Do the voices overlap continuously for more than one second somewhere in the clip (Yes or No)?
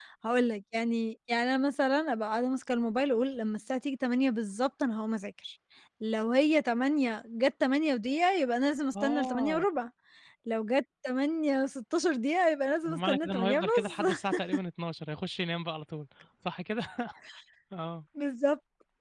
Yes